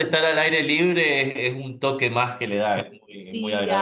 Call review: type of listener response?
taking over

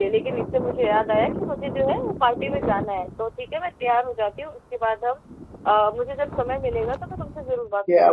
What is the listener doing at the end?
taking over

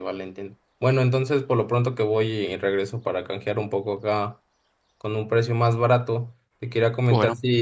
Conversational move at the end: listening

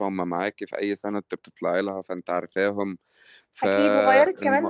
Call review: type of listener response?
taking over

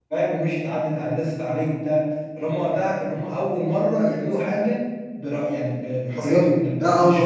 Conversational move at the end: taking over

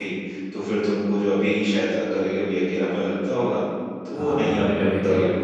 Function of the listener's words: taking over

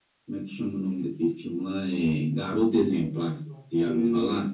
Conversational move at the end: taking over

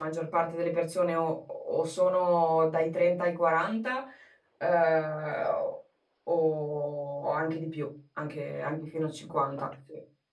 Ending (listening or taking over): taking over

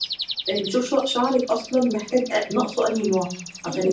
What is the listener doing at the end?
taking over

